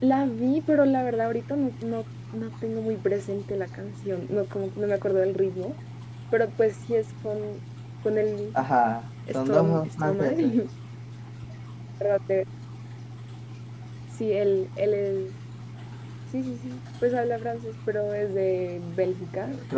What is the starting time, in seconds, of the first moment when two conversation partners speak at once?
9.3 s

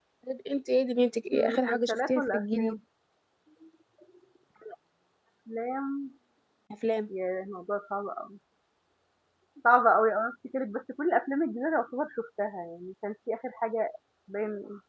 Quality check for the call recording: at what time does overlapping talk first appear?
1.3 s

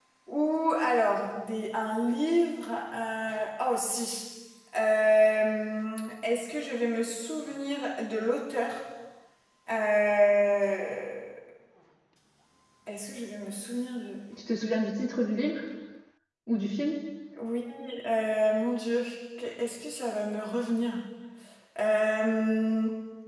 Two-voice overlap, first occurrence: none

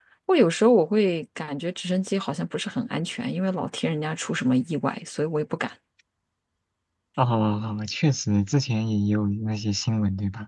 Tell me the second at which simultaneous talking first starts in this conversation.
none

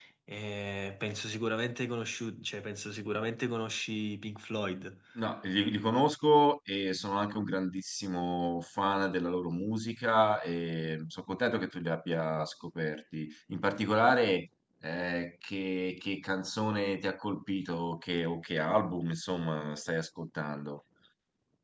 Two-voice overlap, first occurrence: none

